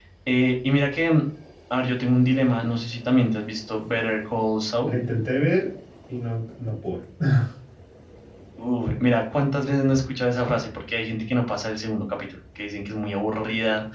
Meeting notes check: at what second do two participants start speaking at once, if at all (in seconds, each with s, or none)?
none